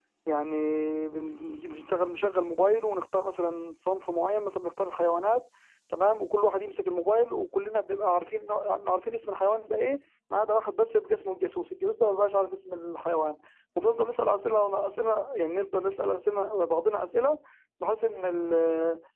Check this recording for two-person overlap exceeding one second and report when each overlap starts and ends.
none

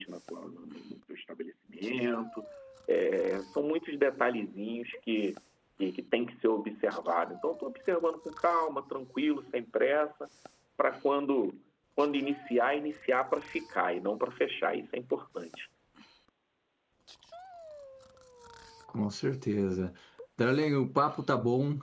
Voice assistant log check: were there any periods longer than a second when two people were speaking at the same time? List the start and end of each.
none

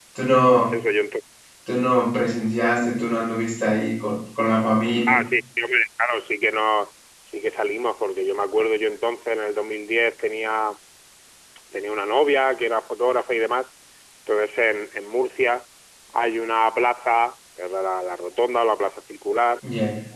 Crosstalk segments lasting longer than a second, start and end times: none

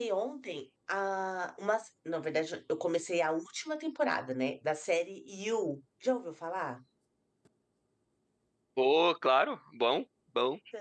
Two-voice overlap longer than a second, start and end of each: none

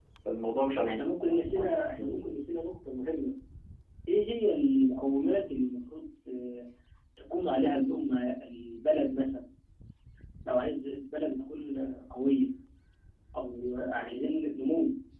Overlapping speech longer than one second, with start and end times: 0.9-2.4

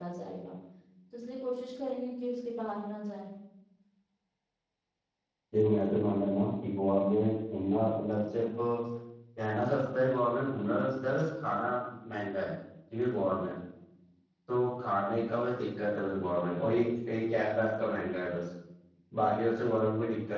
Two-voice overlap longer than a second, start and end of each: none

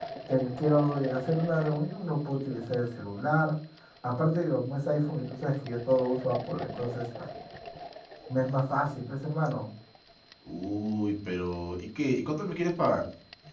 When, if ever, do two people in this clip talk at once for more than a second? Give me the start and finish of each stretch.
none

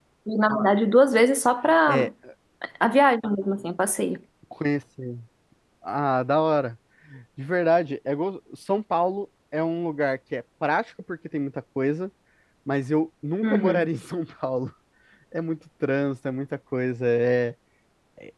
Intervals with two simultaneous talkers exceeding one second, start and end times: none

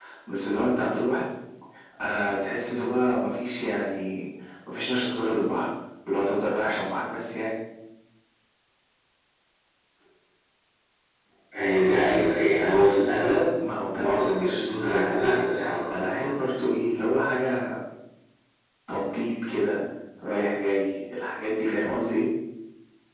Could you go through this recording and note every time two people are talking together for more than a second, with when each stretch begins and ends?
13.9-15.4

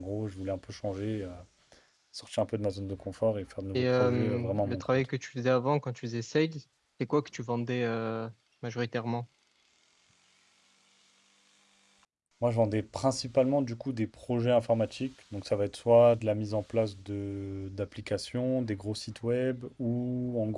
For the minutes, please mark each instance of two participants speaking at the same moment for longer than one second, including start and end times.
3.8-5.0

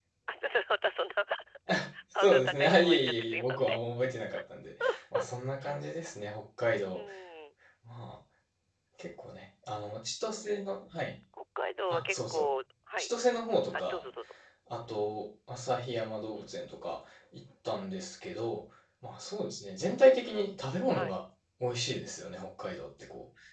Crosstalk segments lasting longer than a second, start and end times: 2.2-3.8

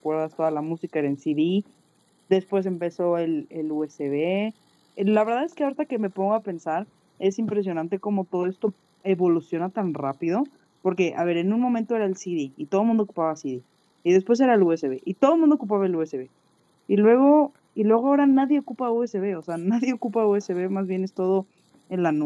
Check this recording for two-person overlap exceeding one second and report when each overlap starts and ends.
none

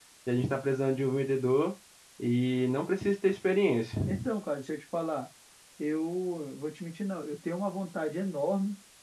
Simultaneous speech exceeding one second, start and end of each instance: none

